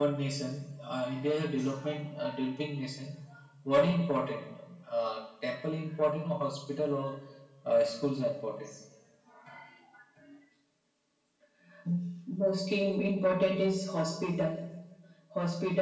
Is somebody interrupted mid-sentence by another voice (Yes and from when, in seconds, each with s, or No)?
No